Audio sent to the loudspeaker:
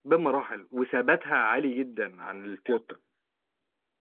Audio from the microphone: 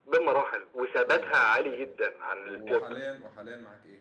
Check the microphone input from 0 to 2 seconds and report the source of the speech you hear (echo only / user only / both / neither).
both